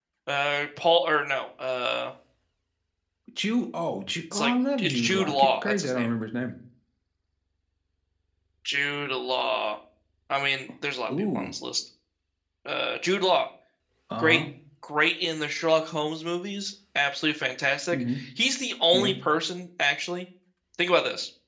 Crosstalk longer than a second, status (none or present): present